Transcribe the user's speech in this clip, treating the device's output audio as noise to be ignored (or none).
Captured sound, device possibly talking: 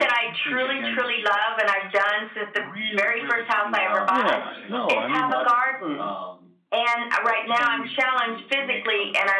yeah. No, I mean